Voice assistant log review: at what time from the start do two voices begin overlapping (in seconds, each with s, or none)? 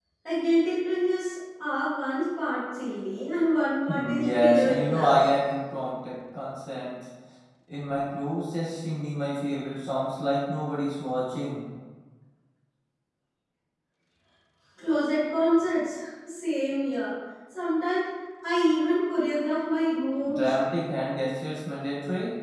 3.9 s